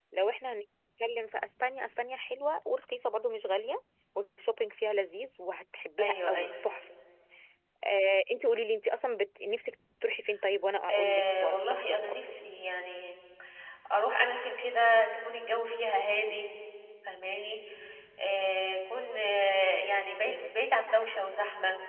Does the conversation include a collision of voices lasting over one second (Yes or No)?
Yes